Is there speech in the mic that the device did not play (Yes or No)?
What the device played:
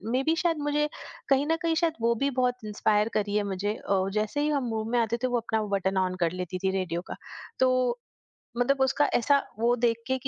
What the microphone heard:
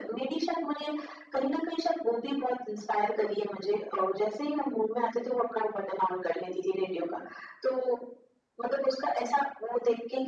No